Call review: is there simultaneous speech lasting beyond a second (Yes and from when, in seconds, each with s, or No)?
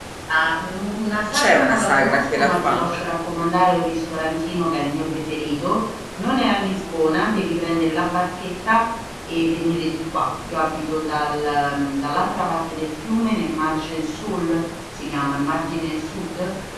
Yes, from 1.3 s